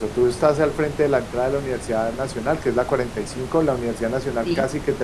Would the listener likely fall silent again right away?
Yes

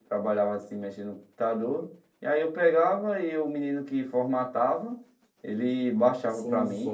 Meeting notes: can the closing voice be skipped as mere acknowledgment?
No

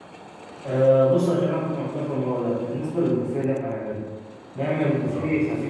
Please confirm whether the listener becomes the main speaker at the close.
No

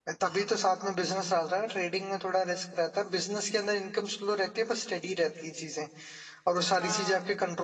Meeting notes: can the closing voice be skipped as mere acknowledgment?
Yes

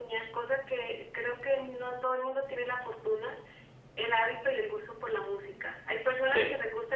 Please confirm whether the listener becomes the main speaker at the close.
No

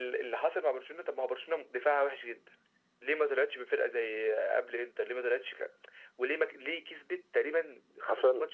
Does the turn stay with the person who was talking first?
Yes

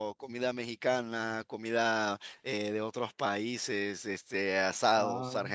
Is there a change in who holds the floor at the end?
No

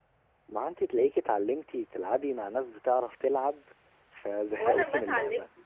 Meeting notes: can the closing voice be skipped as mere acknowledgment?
No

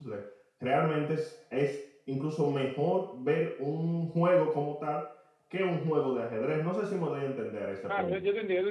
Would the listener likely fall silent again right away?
No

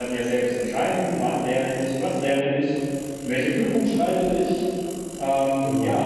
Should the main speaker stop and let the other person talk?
No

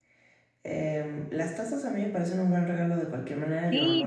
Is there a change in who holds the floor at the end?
Yes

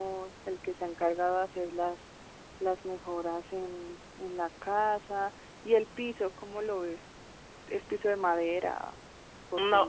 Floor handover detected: Yes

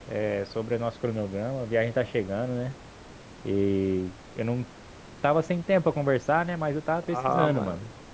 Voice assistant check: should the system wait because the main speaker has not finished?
No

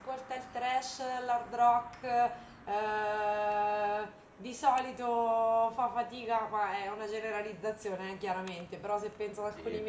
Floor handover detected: No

